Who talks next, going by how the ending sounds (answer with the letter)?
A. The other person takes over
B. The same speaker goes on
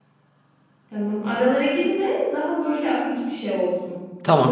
A